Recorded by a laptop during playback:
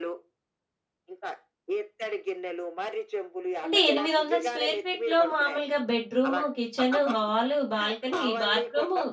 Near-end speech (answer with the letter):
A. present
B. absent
A